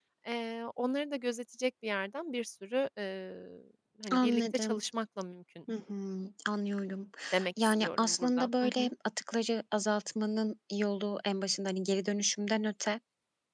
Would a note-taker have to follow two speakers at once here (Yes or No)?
Yes